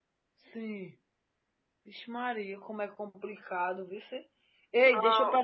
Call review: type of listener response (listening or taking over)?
listening